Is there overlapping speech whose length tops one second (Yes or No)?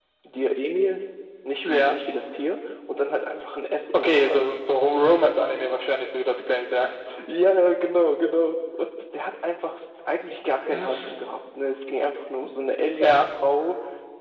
No